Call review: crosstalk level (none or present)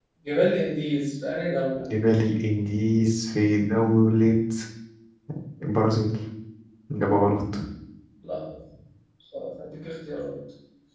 none